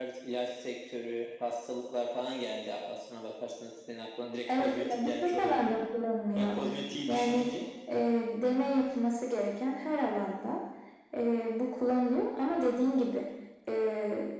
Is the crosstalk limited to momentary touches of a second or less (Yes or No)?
No